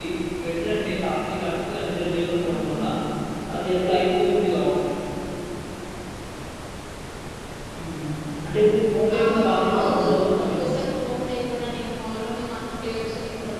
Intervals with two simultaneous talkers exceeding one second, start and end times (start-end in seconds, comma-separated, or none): 9.2-10.6